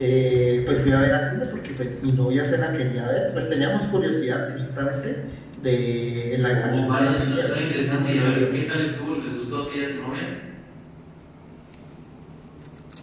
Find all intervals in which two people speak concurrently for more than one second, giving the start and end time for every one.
6.5-8.5

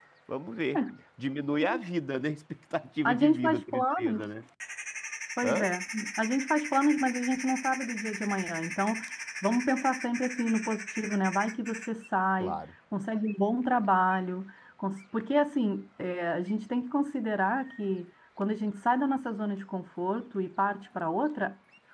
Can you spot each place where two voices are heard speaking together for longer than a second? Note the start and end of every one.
3.0-4.3

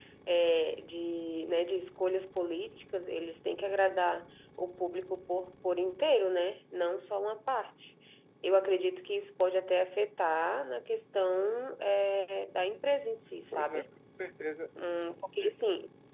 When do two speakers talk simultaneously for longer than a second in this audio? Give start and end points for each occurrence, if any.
none

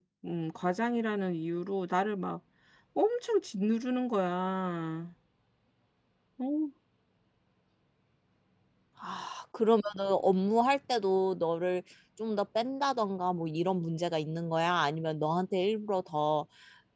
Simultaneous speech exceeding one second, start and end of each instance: none

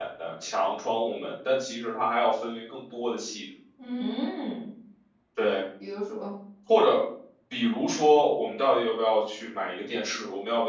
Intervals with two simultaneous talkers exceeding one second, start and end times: none

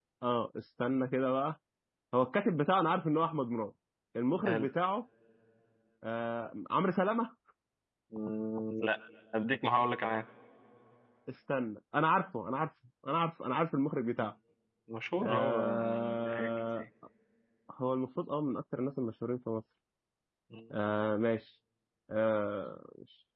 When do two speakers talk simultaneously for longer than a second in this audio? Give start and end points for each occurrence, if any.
15.2-16.8

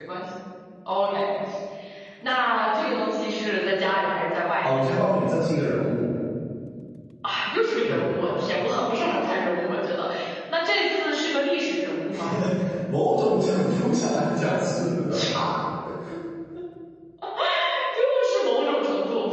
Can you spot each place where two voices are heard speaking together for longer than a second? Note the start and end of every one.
none

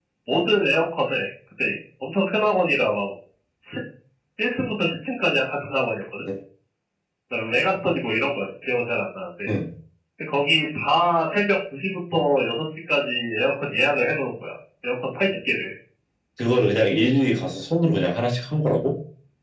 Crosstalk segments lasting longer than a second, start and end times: none

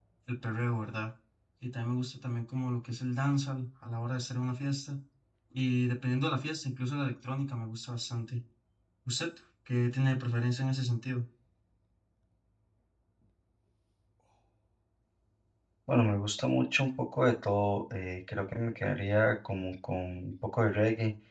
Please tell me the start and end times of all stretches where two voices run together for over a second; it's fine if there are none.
none

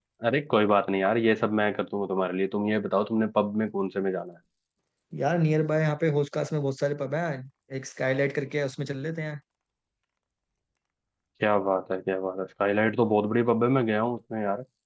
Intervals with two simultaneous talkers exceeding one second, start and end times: none

